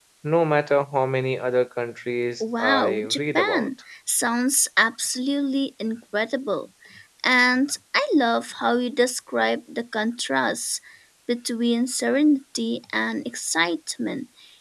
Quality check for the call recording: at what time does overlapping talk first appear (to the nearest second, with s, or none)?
2 s